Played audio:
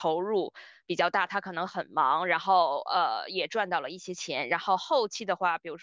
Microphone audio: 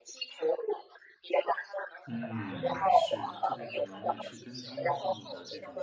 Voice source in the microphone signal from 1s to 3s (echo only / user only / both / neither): both